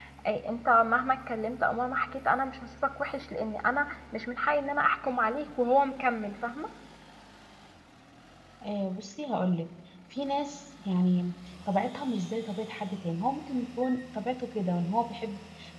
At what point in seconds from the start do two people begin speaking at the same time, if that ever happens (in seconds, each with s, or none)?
none